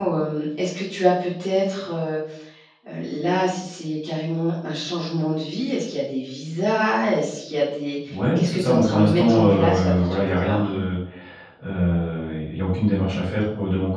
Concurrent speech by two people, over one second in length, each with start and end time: 8.3-10.7

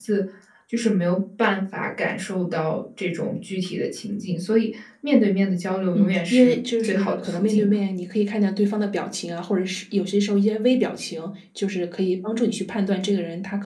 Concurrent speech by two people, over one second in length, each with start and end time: 5.9-7.8

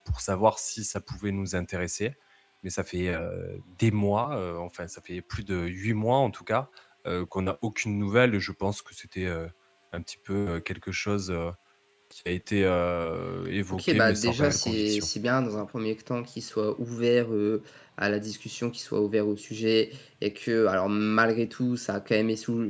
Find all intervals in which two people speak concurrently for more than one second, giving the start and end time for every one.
13.7-15.1

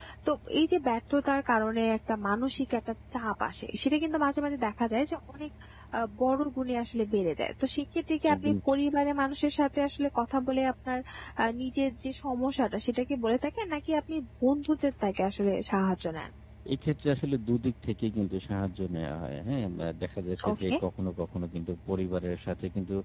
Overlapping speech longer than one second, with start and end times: none

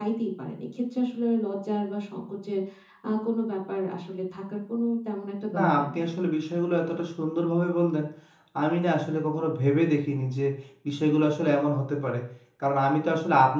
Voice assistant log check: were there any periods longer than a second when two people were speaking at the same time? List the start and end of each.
none

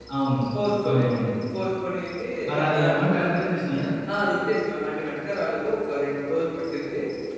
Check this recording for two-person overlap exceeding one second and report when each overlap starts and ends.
none

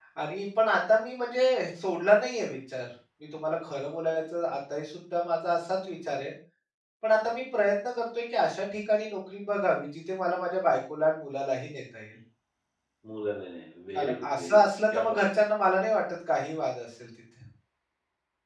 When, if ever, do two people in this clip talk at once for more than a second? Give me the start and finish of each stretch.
13.9-15.2

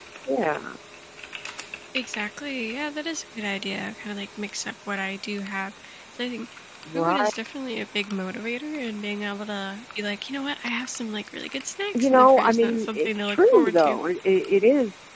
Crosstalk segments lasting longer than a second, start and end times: 11.9-14.0

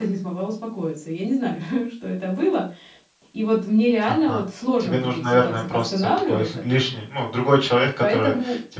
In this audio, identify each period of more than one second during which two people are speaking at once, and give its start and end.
4.8-6.6

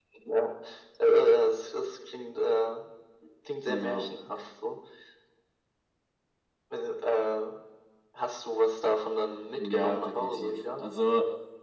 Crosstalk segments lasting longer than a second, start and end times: 9.6-10.9

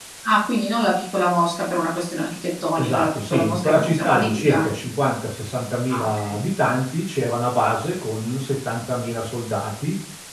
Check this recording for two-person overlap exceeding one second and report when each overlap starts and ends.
2.8-4.7

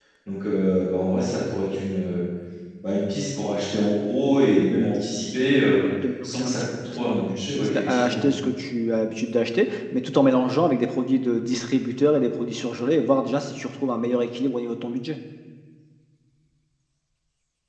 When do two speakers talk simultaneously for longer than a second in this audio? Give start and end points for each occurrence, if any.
6.2-8.3

